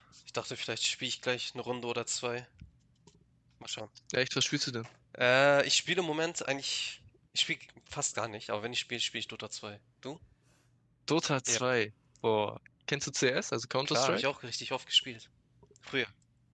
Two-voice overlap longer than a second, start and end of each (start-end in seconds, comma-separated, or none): none